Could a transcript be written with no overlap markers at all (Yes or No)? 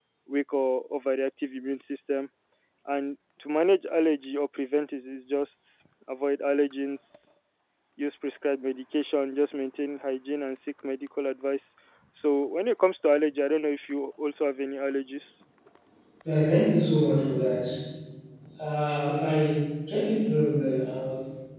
Yes